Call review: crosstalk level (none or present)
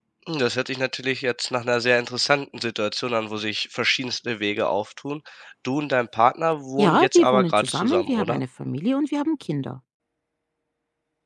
present